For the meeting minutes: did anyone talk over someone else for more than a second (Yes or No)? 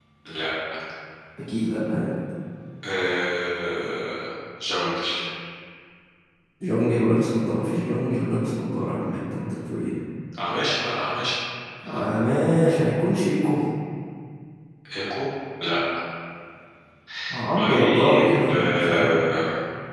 Yes